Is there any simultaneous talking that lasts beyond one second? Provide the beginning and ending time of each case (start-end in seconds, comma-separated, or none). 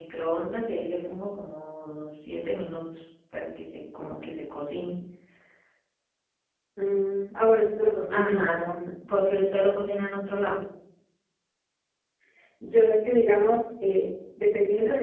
none